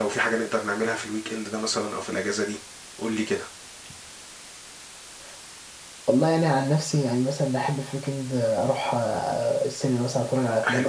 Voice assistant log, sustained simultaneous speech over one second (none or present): none